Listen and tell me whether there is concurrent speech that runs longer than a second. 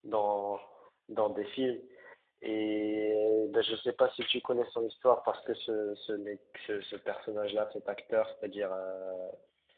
No

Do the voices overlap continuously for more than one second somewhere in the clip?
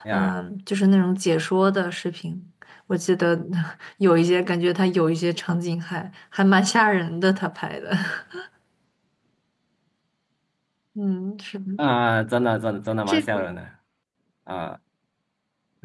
No

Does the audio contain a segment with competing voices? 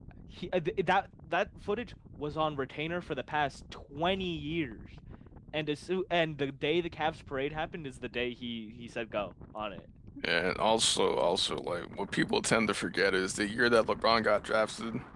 No

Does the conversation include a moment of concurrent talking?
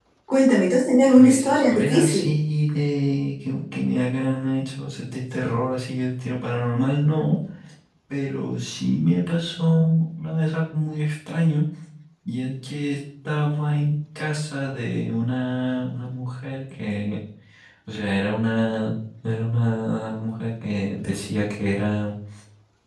Yes, from 1.1 s

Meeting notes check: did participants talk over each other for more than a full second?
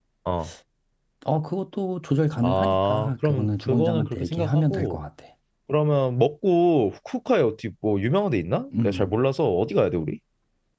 Yes, from 2.4 s

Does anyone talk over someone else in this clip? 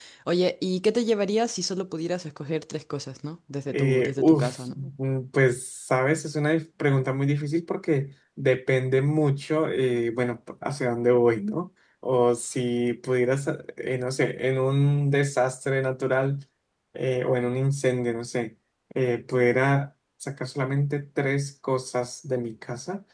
Yes, from 3.7 s

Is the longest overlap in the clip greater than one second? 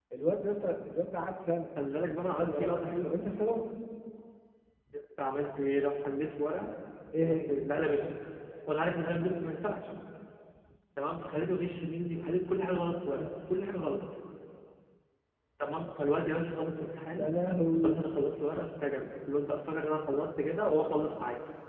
Yes, from 1.8 s

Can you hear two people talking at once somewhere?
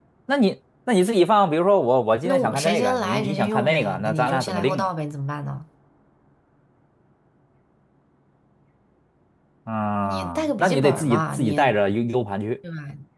Yes, from 2.2 s

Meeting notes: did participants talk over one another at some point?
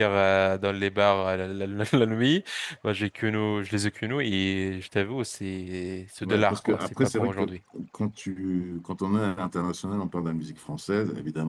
Yes, from 6.2 s

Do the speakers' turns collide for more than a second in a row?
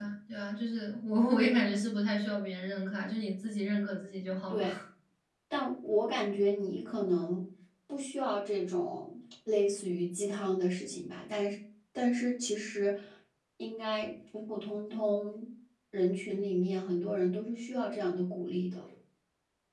No

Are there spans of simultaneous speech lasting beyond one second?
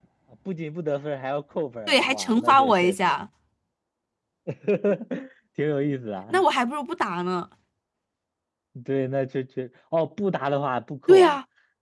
Yes, from 1.9 s

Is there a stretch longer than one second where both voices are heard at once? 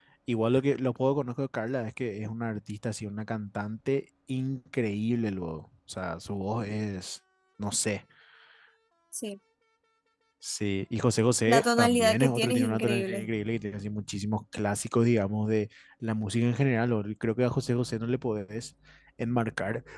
Yes, from 11.5 s

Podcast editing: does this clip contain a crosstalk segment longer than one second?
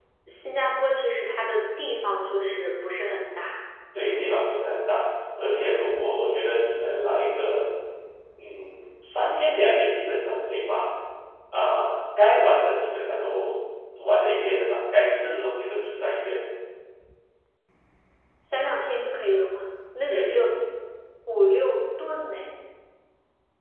No

